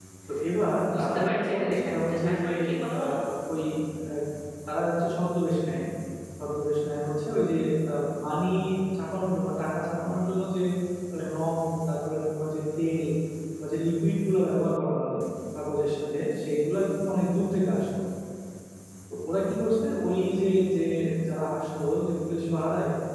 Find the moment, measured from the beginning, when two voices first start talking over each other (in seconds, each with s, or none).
1.0 s